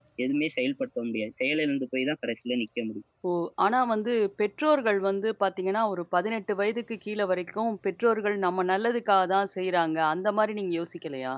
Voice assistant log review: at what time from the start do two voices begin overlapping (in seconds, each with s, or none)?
none